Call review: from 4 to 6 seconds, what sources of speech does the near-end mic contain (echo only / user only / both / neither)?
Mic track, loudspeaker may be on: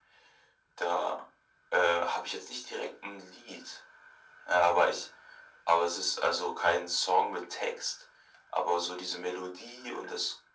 echo only